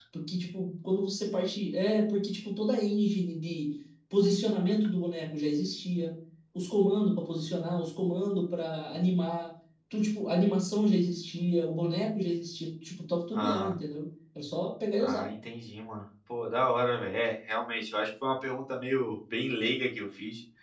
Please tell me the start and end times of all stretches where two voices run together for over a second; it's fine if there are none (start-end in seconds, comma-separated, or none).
none